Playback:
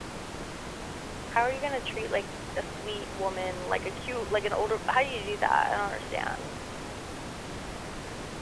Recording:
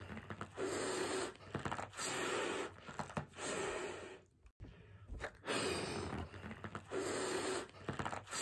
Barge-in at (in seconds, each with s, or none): none